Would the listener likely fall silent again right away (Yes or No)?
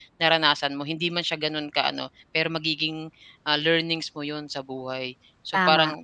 Yes